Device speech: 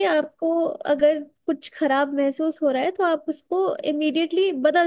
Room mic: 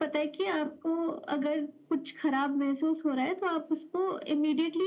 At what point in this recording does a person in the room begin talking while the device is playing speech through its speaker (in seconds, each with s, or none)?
none